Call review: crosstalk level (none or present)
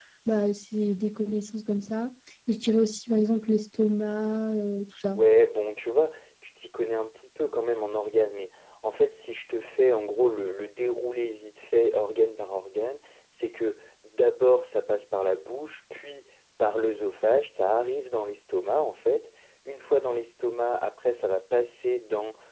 none